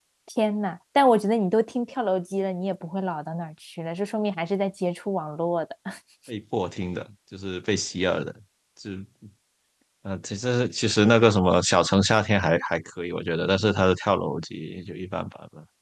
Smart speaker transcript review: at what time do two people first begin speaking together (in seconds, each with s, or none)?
none